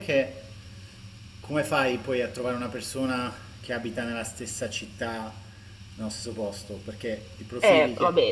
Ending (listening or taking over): taking over